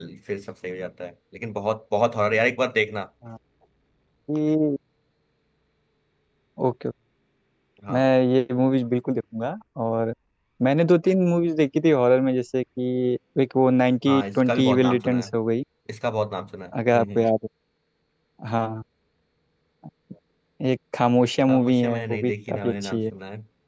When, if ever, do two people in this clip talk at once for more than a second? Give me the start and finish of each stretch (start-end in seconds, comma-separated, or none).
14.1-15.3, 21.5-23.0